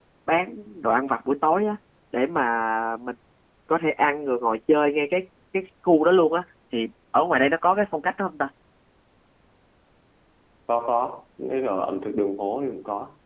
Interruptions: none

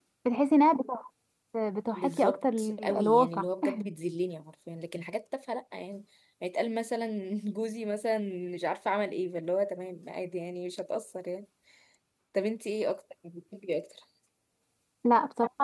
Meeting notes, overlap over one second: present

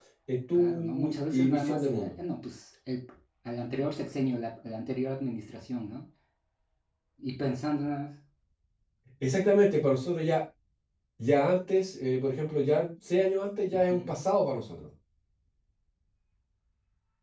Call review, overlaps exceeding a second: present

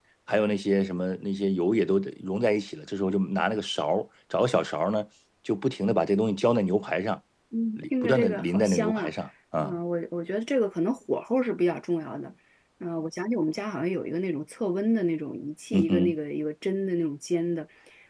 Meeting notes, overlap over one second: present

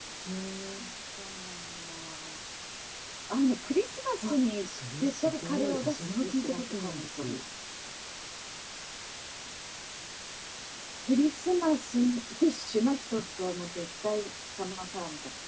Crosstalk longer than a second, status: present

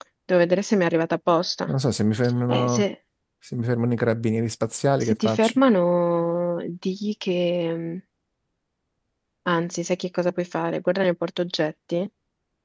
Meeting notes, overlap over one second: none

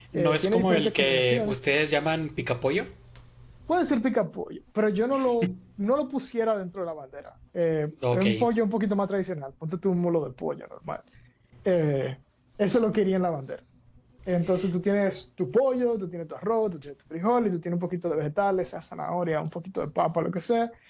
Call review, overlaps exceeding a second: present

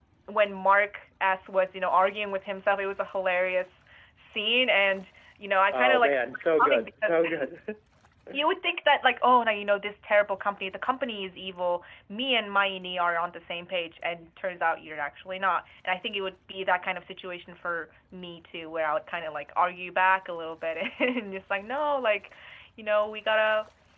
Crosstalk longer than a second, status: present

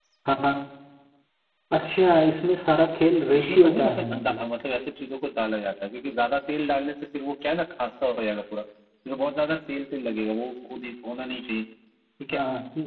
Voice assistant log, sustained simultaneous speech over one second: present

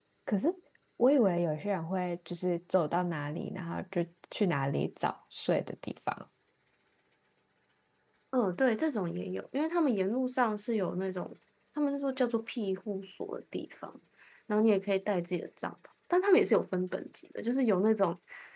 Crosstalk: none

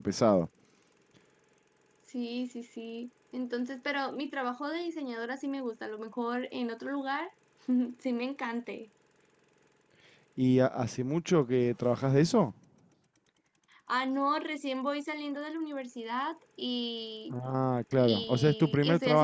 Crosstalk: present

